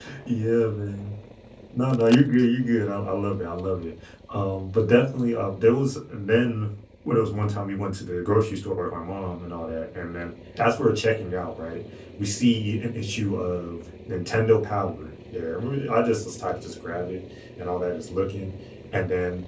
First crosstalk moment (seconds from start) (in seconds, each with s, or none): none